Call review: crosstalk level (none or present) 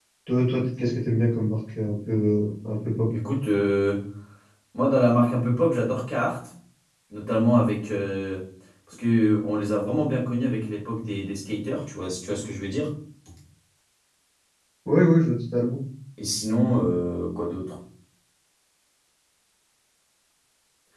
none